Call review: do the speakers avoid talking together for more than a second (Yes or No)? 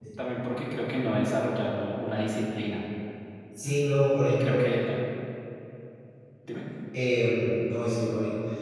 Yes